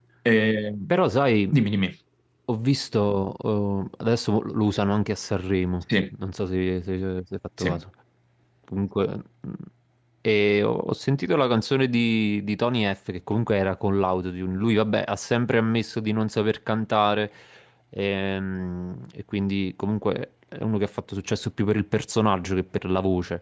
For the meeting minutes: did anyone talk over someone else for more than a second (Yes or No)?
No